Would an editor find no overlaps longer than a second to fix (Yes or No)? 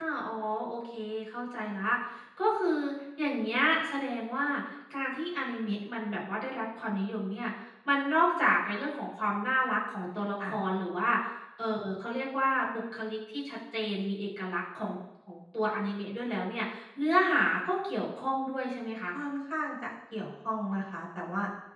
Yes